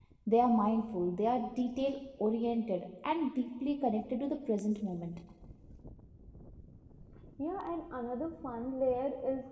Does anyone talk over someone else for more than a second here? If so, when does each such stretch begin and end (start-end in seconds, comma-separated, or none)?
none